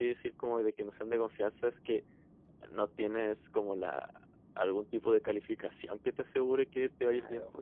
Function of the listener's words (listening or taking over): taking over